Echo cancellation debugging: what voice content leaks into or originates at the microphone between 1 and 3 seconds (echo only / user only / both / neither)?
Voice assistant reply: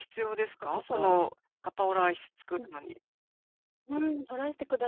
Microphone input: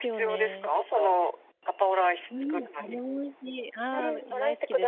both